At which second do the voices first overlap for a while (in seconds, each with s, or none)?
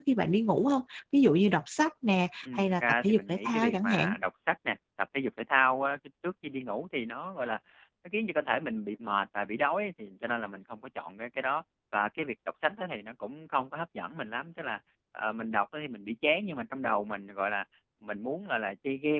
2.4 s